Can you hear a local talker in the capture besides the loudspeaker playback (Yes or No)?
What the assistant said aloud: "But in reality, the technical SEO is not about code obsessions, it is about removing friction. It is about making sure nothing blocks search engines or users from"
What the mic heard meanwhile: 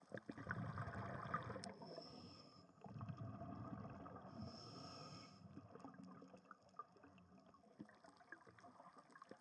No